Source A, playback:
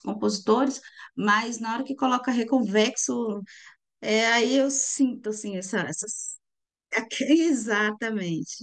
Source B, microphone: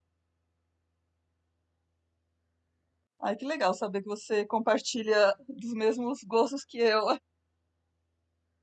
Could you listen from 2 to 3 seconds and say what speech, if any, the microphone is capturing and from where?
neither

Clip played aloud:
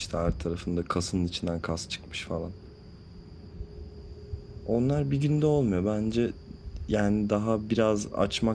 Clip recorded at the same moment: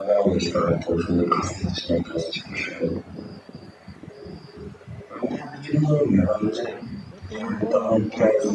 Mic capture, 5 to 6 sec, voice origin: echo only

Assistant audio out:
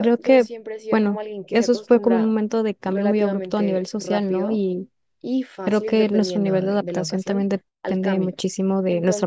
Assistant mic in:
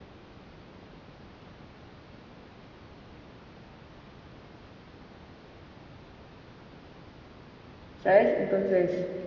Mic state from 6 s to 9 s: user only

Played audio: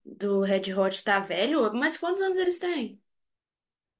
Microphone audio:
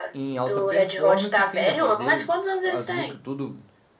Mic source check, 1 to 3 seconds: both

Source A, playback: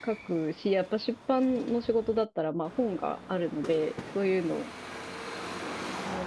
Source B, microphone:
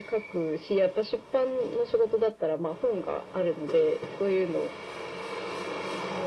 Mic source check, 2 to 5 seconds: echo only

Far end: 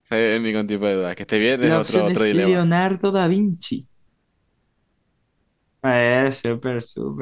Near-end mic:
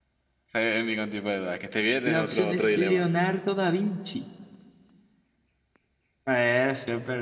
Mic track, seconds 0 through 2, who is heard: echo only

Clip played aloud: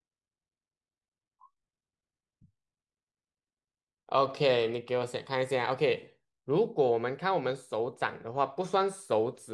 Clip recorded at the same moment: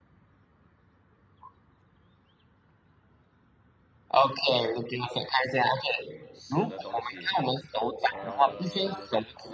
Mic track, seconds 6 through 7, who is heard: both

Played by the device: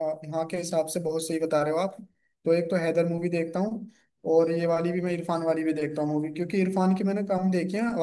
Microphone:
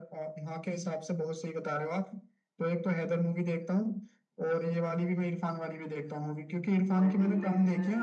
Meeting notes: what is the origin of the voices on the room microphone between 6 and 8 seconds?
both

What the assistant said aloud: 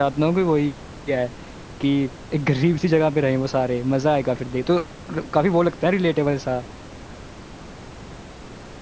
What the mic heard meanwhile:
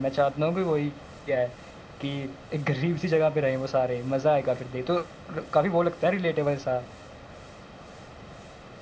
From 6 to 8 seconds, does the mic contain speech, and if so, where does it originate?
echo only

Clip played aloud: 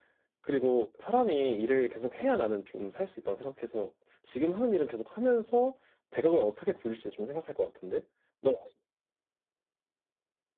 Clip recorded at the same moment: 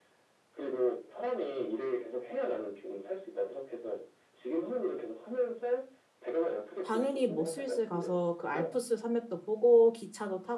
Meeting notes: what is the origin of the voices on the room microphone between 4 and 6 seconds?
echo only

